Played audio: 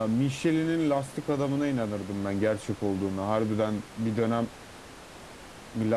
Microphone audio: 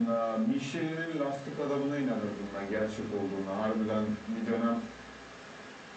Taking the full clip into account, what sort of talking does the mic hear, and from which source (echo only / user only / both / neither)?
echo only